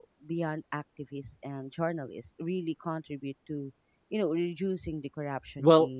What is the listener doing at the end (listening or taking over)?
taking over